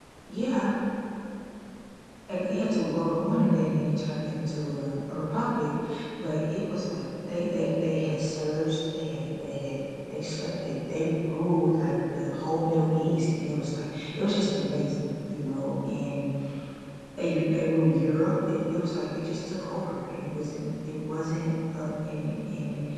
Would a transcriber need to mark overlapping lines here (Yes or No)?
No